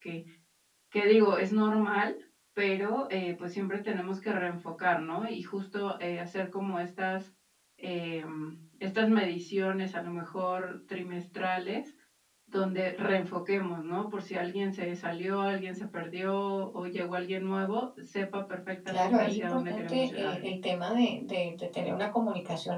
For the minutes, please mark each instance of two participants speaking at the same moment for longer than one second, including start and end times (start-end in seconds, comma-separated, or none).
18.9-20.3